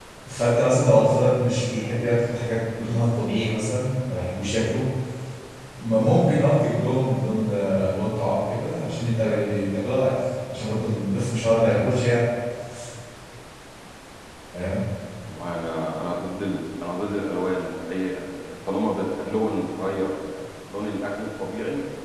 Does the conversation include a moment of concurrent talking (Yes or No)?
No